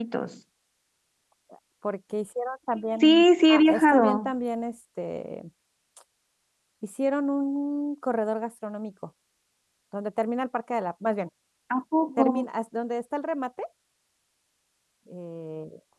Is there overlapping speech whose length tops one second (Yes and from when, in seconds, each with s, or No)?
Yes, from 3.0 s